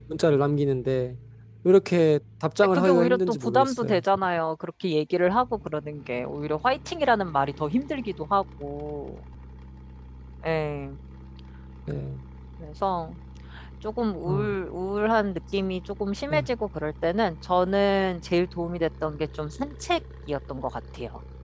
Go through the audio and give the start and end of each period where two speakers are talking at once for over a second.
2.8-4.0

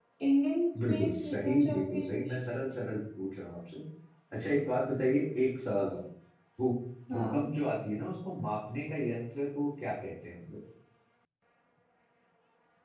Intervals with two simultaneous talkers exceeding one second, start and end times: 0.9-2.3

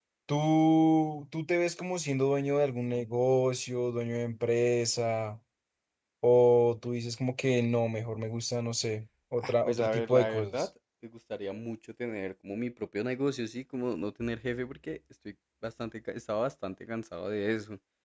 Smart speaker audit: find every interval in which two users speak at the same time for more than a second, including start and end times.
9.4-10.7

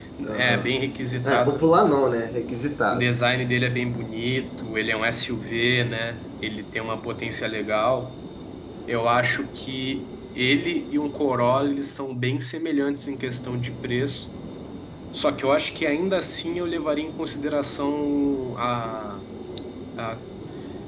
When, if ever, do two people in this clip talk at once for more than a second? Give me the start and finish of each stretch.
none

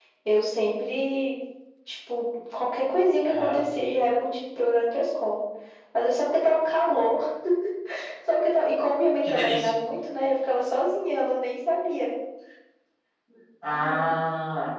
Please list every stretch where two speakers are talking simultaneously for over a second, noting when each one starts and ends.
none

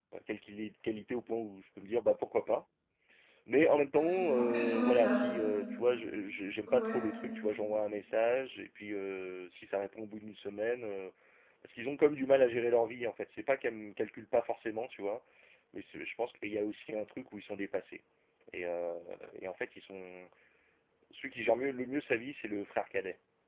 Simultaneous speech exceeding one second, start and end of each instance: 3.9-5.2

